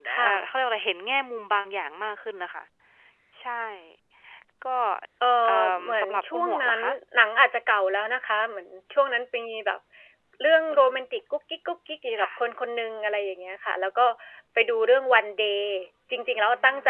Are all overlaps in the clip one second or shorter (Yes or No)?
No